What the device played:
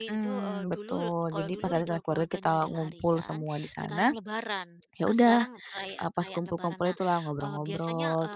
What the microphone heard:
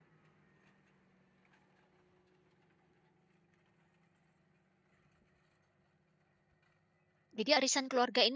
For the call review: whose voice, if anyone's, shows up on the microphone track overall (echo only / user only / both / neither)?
user only